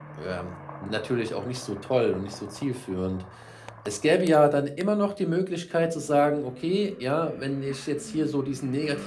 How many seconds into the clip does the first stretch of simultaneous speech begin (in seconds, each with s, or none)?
none